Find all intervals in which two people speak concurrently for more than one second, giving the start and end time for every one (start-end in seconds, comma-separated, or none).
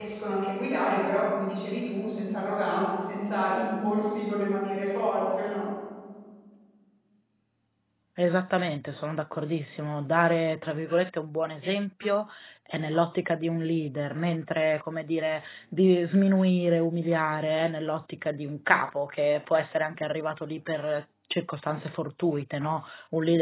none